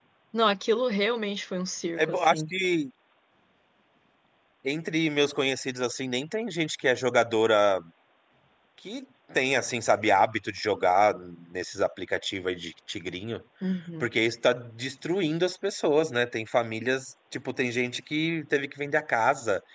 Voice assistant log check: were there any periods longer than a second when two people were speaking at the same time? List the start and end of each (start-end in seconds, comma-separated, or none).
none